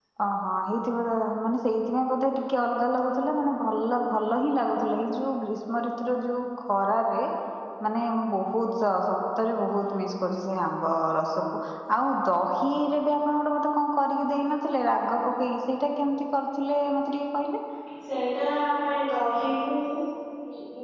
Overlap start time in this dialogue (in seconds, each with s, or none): none